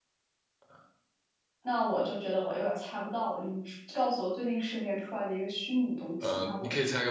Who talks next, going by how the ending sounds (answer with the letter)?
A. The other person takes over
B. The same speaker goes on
A